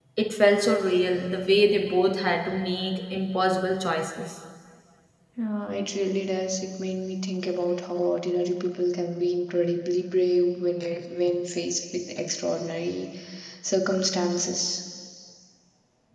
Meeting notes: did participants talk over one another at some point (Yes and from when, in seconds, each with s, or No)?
No